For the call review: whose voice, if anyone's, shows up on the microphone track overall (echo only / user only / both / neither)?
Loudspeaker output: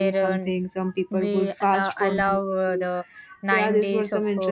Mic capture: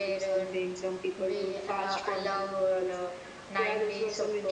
echo only